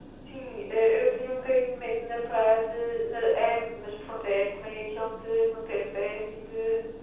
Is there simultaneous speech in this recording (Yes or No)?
No